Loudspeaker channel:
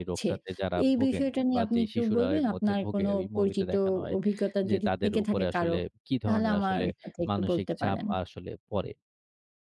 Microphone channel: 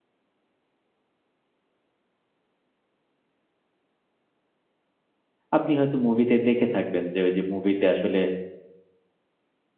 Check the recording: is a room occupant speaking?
Yes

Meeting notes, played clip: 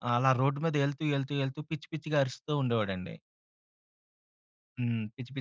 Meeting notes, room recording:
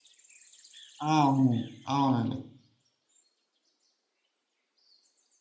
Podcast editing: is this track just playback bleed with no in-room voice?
No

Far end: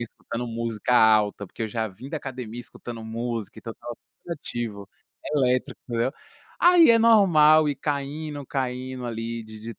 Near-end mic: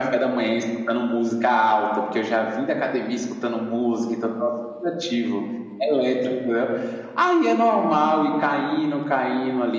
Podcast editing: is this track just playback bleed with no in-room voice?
Yes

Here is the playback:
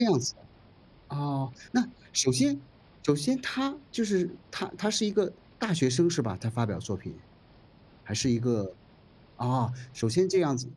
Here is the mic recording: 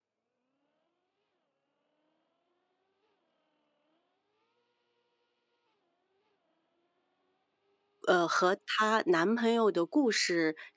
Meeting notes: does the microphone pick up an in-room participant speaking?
Yes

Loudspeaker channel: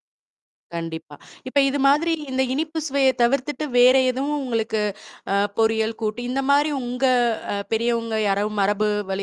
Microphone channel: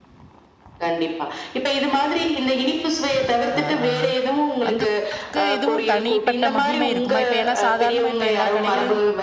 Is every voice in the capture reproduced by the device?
No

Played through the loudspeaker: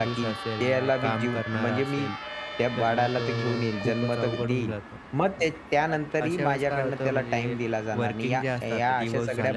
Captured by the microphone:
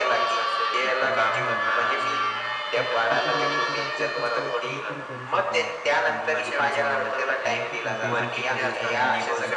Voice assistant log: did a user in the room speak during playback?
Yes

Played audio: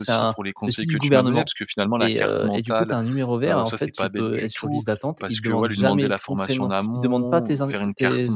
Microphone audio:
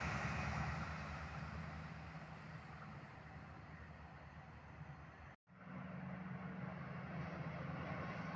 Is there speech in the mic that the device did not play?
No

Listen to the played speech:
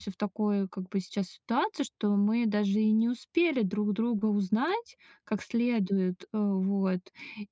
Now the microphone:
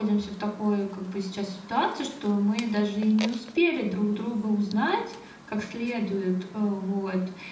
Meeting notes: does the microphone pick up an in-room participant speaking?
No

